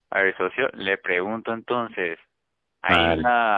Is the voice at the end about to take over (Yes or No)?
No